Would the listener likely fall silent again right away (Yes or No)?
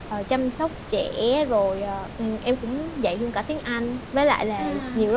Yes